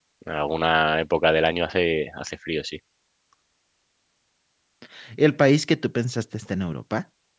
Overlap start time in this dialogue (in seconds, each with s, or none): none